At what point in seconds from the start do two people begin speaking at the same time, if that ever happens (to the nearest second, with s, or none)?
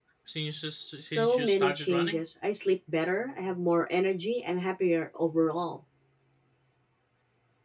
1 s